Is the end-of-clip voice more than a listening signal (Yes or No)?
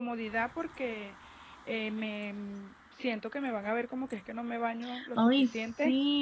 Yes